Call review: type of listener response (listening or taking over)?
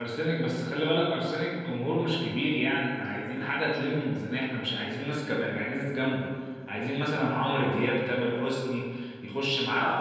listening